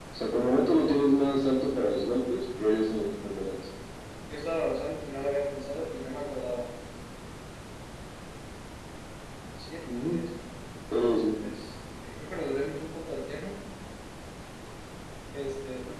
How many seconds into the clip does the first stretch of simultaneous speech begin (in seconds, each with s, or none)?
none